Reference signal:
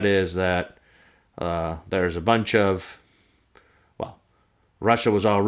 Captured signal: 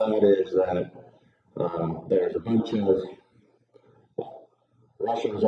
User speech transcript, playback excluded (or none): none